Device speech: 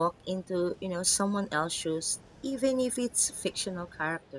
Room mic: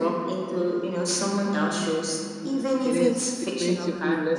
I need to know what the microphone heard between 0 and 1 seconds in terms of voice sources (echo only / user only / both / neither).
echo only